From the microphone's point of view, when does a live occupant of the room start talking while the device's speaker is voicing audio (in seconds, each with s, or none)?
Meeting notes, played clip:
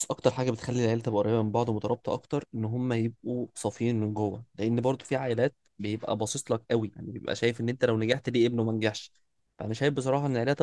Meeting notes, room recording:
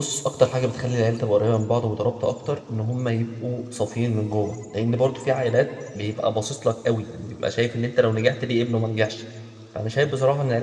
none